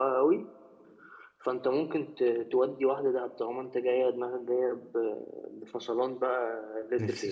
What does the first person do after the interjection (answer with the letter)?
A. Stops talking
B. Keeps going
A